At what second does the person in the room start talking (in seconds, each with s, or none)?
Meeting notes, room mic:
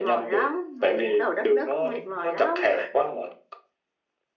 none